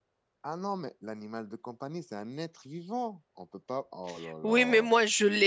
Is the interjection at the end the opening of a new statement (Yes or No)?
Yes